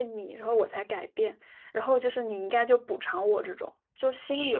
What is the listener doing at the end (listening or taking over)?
taking over